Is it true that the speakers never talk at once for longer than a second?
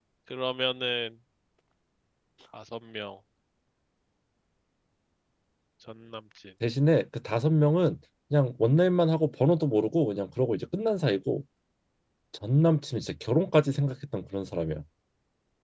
Yes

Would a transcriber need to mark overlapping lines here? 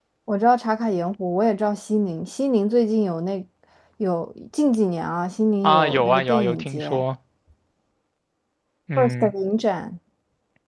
Yes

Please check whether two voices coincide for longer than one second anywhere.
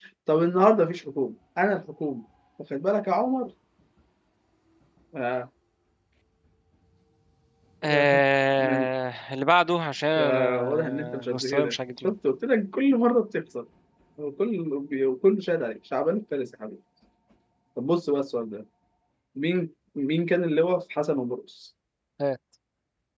Yes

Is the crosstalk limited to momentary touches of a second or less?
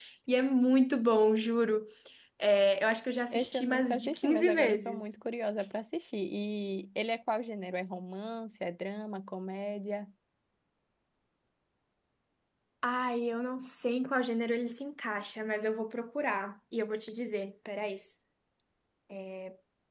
No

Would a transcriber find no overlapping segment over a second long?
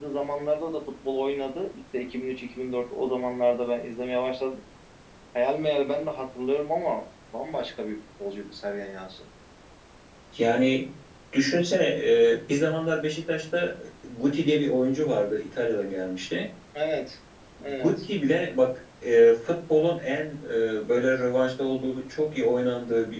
Yes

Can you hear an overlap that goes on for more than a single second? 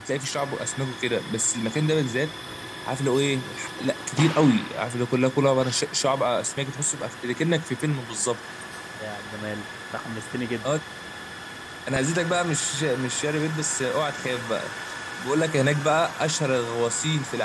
No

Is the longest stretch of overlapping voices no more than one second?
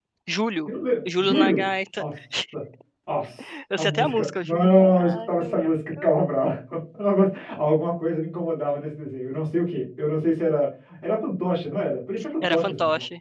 No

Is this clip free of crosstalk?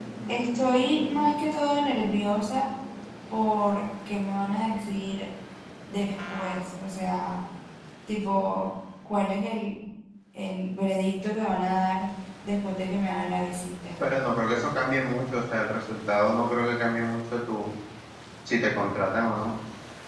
Yes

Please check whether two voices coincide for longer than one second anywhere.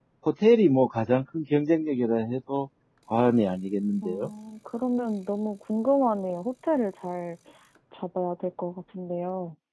No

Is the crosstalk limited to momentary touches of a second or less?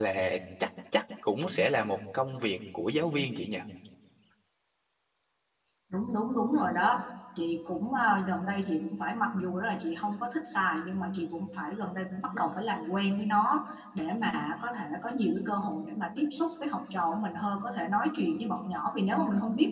Yes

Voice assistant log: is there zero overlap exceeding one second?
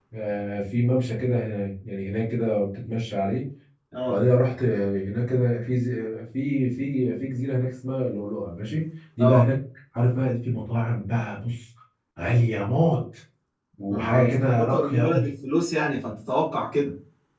No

